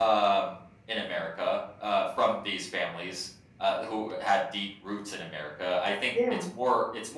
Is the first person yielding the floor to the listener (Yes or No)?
No